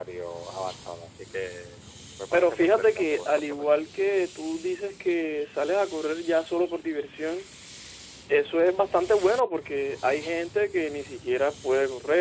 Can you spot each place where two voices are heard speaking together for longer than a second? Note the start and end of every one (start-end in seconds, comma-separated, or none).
2.3-3.7